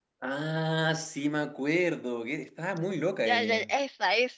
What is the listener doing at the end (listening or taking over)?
taking over